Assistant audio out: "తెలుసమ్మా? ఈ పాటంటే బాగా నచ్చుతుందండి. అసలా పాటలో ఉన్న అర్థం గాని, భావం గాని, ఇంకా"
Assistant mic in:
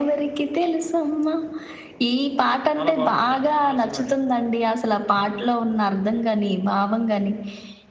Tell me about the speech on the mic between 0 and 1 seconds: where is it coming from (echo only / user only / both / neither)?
echo only